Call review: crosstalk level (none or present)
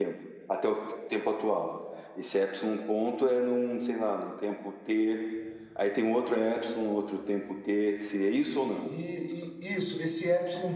none